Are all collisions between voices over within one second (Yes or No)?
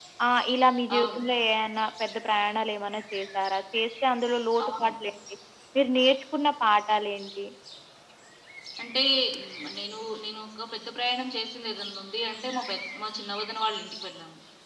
Yes